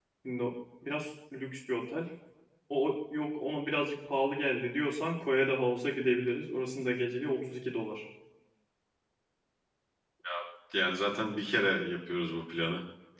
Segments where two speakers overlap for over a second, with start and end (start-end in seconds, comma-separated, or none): none